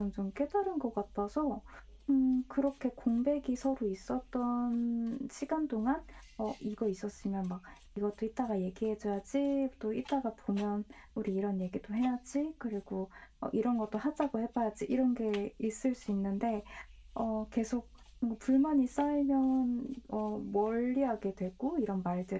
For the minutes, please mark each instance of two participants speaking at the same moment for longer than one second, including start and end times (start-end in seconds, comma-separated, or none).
none